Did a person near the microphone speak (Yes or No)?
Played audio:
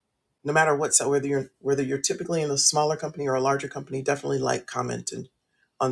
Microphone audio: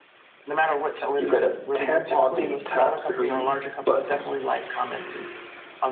Yes